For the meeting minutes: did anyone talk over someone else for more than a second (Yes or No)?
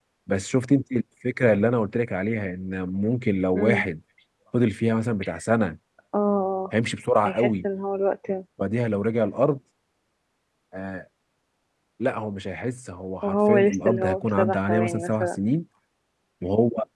Yes